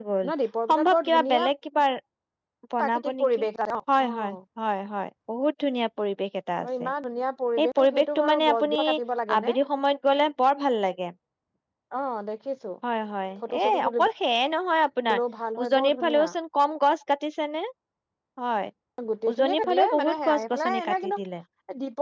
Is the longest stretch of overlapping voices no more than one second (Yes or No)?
No